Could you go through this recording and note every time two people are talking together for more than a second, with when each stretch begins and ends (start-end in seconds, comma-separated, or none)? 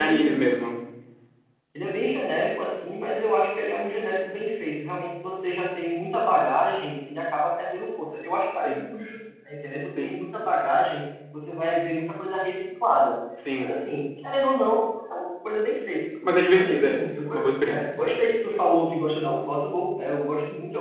16.6-17.8